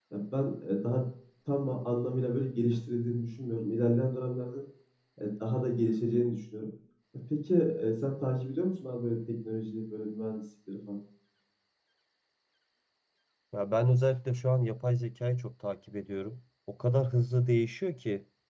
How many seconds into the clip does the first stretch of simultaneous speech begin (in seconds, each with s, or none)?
none